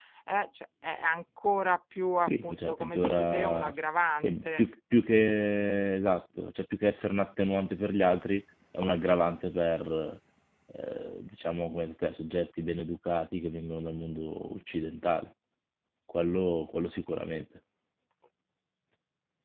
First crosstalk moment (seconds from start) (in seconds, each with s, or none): 2.2 s